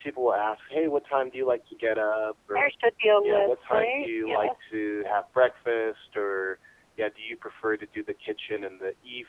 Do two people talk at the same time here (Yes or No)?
Yes